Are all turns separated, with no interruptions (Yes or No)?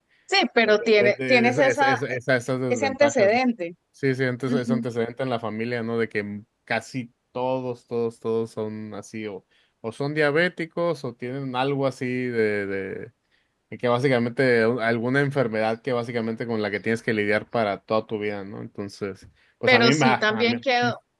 No